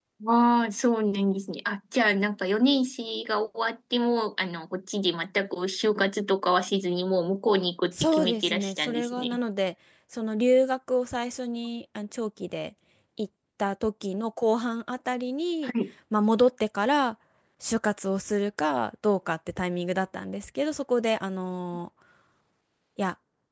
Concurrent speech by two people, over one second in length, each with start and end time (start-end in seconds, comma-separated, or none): 8.0-9.4